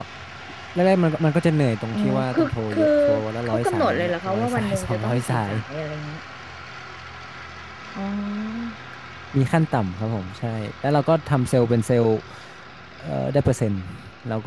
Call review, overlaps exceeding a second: present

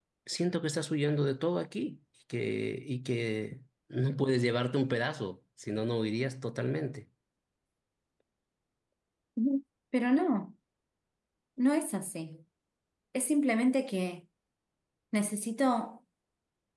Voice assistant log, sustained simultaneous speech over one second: none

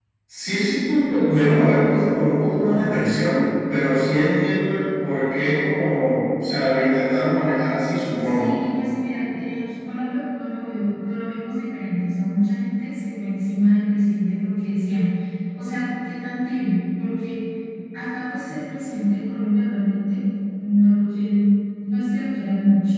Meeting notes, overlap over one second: none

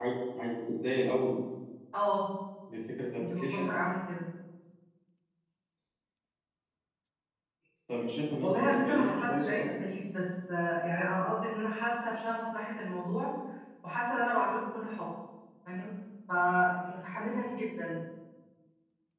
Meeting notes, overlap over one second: present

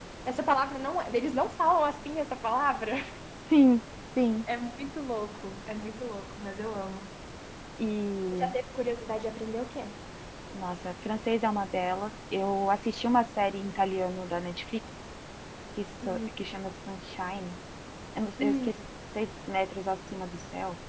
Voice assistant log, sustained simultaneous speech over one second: none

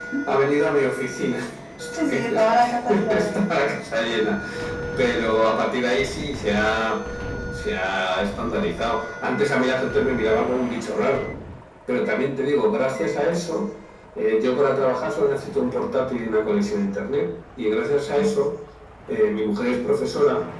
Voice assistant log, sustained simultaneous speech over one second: present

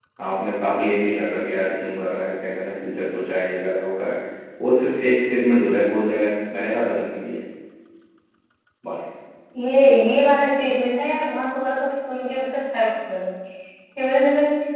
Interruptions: none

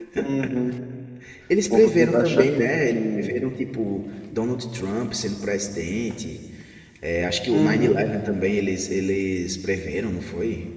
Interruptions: present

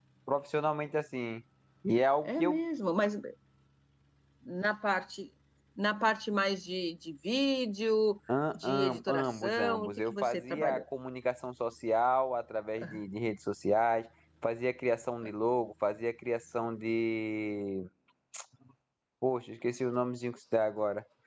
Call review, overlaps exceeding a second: present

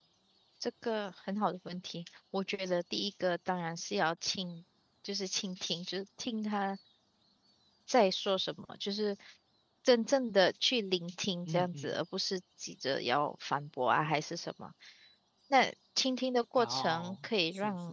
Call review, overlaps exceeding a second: present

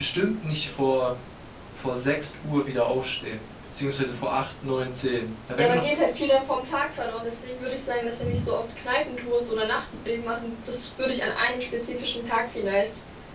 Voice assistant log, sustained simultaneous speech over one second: none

